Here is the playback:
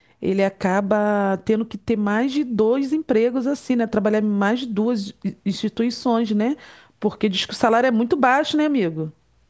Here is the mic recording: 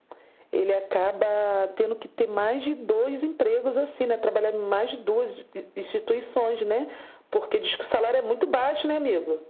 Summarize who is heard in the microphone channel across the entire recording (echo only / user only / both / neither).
echo only